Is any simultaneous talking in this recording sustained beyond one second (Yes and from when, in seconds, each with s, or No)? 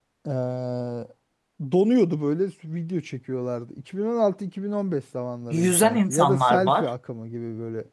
Yes, from 5.5 s